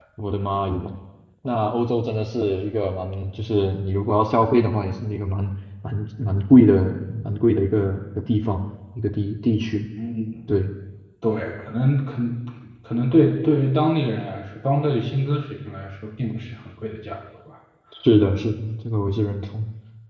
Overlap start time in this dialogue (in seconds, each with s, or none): none